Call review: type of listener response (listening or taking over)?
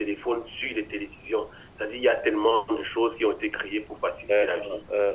taking over